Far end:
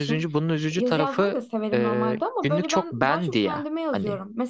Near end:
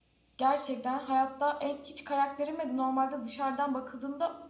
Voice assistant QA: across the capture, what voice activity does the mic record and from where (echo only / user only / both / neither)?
user only